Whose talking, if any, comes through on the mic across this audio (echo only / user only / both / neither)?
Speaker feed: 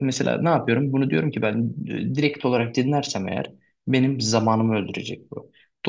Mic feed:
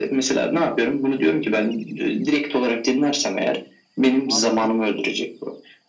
both